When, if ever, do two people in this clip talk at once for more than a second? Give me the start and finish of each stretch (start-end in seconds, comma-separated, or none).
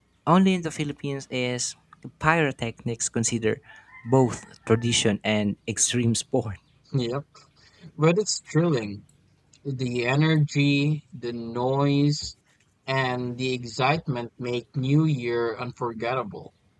none